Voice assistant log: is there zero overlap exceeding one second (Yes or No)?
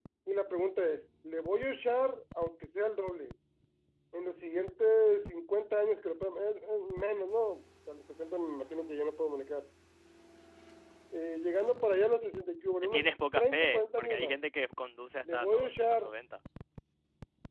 No